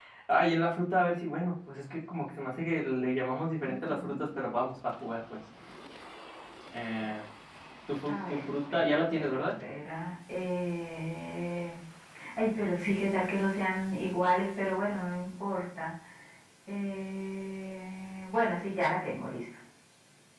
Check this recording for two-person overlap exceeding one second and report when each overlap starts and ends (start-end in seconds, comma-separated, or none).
8.2-9.4